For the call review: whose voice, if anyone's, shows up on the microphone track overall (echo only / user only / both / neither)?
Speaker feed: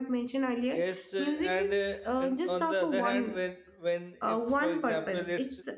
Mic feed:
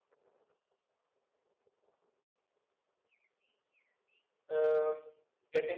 user only